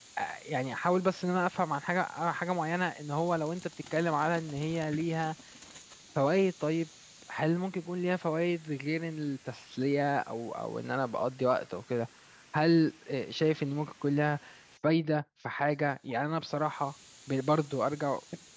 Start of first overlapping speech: none

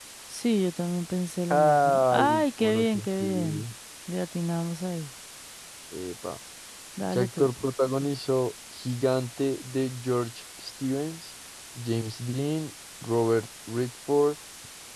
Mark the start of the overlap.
2 s

